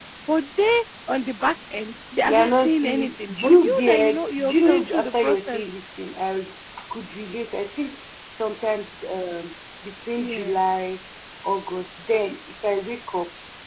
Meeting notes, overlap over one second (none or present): present